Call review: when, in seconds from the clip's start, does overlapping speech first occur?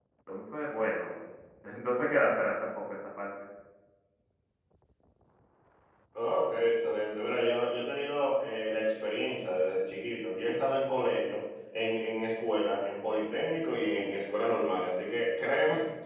none

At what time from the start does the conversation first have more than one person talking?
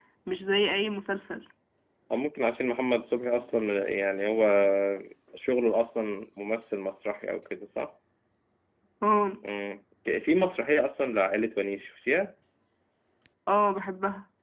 none

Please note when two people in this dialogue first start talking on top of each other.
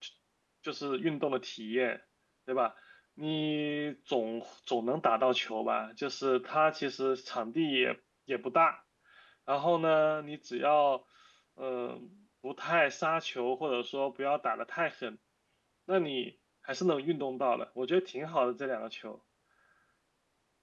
none

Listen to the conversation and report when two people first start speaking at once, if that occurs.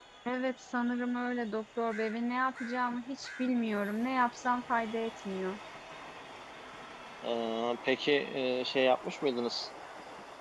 none

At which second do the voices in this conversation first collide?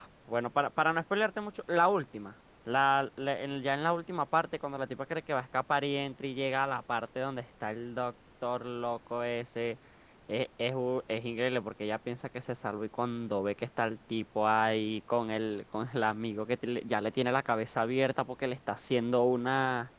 none

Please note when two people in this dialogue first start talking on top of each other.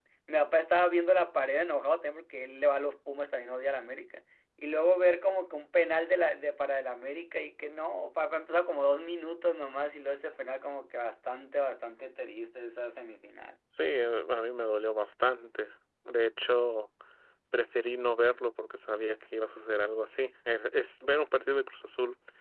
none

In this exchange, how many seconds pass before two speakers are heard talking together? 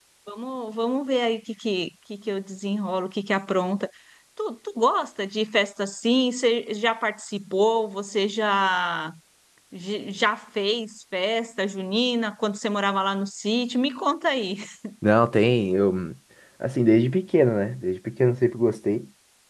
none

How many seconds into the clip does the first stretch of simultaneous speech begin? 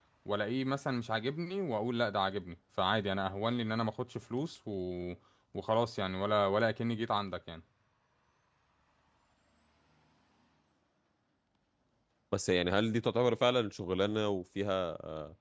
none

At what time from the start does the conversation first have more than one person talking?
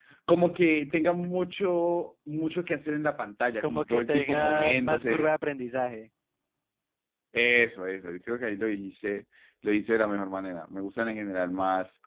3.6 s

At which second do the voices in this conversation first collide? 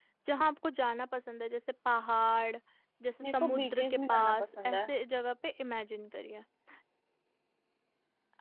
3.2 s

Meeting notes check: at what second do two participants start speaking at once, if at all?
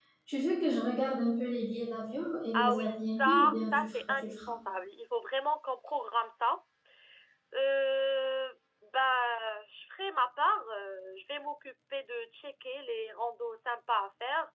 2.5 s

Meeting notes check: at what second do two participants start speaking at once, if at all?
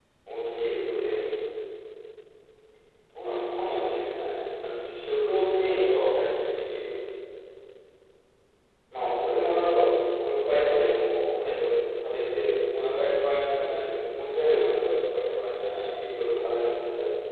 none

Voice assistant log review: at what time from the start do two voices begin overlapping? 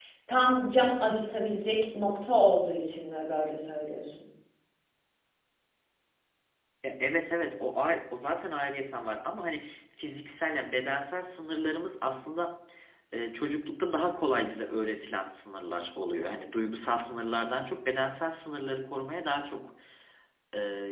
none

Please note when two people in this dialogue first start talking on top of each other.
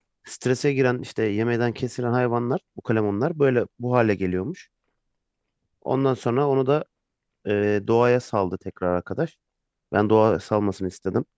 none

